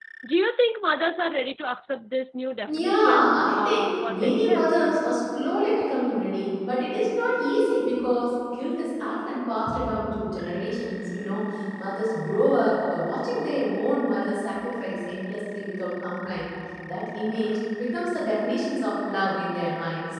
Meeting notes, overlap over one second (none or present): present